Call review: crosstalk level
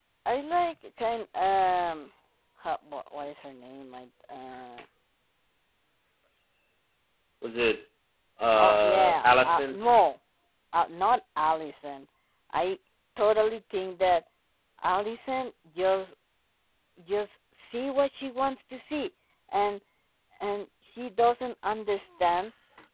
present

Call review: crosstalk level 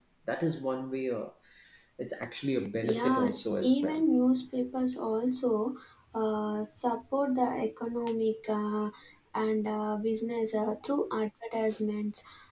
present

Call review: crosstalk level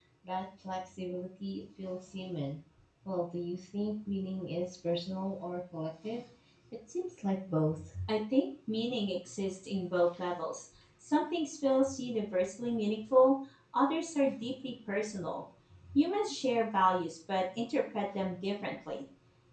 none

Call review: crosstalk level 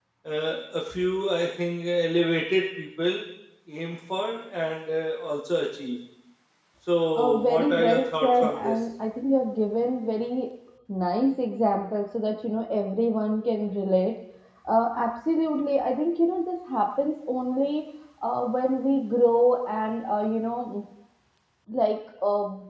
present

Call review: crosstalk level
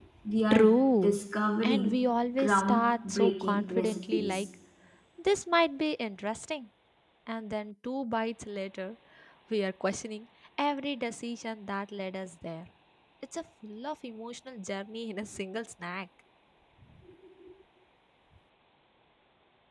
present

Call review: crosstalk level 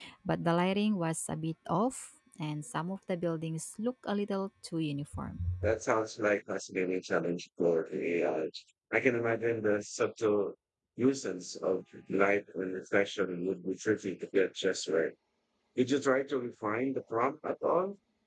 none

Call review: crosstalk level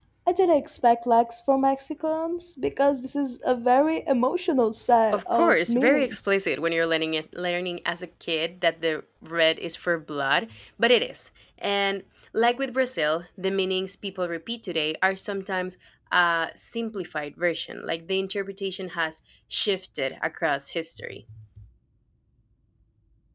present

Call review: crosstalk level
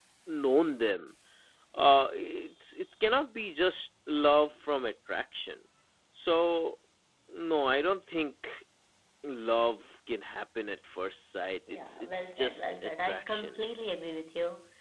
present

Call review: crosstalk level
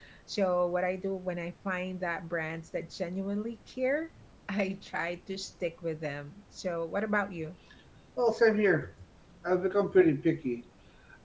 none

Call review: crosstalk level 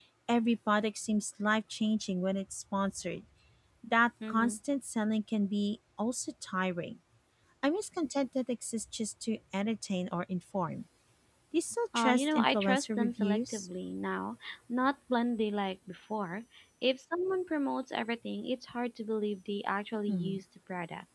present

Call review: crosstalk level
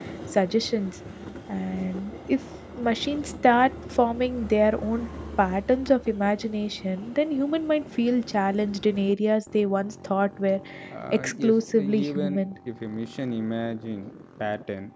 present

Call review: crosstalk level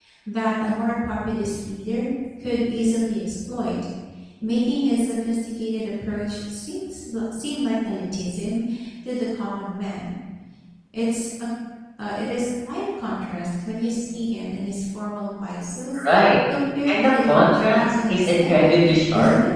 present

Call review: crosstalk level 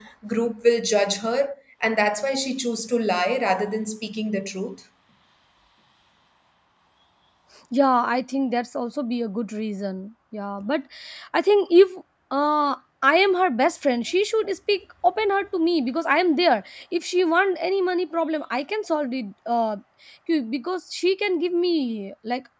none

